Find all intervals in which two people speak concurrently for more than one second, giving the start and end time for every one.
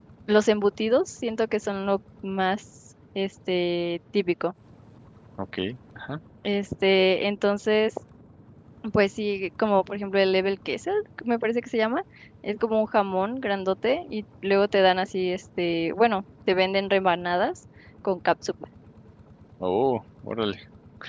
none

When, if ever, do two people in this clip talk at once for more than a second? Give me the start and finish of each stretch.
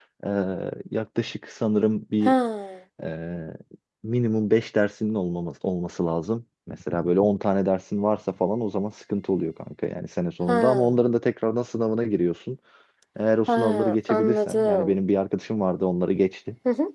13.5-15.0

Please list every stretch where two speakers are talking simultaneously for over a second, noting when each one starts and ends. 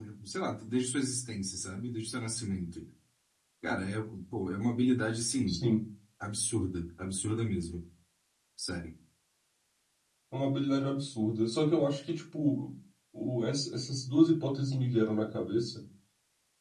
none

